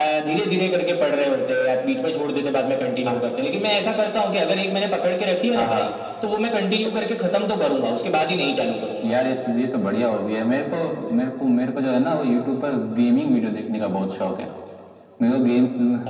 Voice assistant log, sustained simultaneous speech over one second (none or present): none